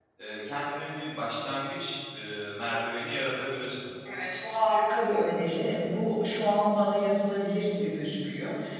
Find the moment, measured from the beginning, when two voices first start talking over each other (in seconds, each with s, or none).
none